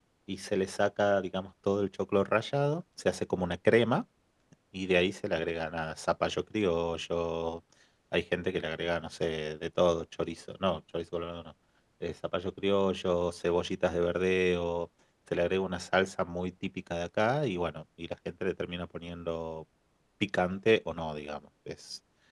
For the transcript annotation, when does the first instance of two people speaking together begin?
none

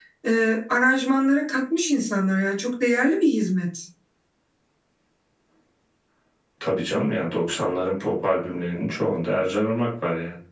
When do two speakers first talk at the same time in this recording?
none

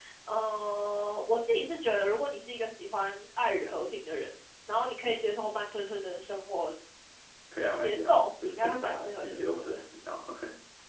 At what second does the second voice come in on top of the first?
7.8 s

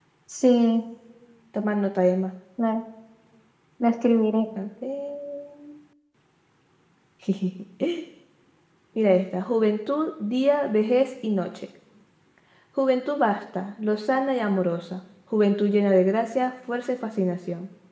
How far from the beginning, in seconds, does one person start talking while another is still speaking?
none

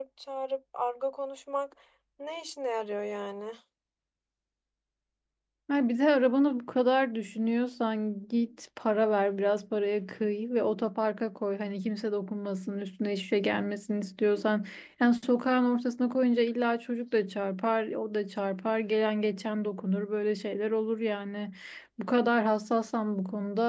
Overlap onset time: none

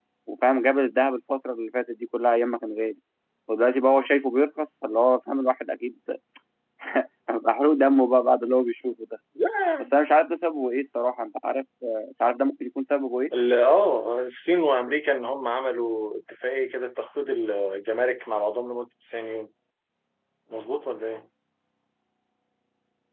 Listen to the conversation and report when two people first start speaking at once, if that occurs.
none

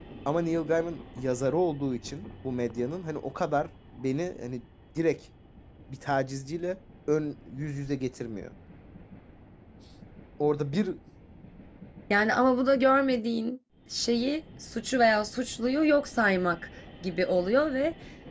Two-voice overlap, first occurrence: none

